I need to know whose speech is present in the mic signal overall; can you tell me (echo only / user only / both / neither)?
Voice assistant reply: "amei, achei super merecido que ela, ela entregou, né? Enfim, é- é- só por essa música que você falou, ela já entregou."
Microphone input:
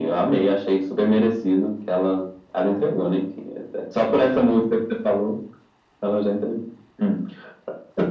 echo only